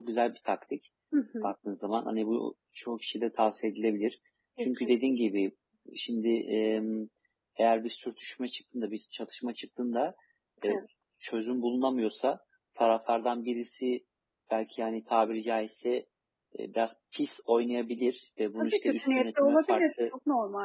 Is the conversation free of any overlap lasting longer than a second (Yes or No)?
No